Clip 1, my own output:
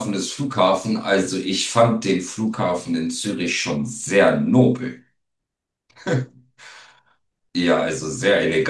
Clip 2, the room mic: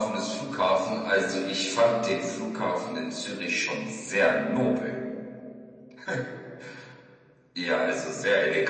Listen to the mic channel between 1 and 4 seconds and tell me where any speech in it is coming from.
echo only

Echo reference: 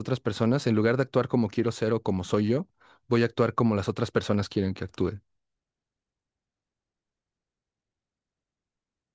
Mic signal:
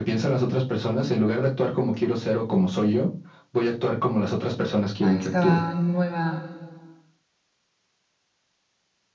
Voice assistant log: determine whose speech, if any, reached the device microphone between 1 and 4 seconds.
echo only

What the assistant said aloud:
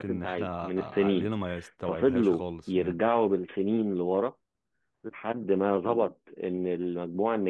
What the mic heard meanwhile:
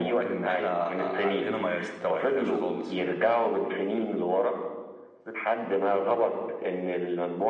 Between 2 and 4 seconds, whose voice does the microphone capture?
echo only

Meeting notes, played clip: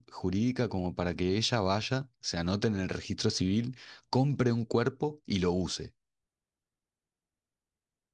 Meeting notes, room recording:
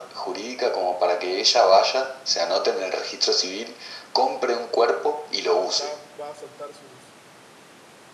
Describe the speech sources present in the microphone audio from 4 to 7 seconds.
both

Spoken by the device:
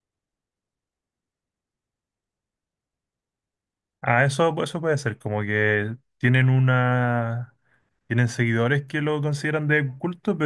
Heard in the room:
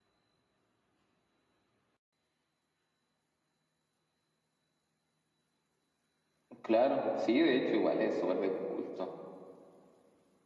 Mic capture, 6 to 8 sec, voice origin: user only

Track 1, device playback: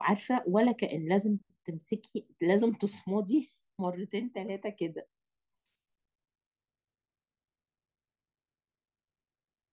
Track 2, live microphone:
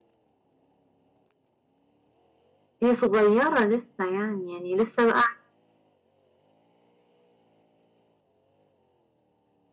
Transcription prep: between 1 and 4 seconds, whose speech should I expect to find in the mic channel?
user only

